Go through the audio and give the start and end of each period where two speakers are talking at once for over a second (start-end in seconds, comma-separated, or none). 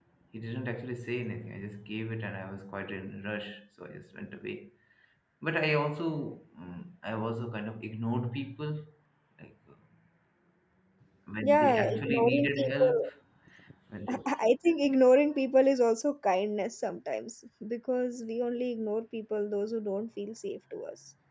11.4-13.0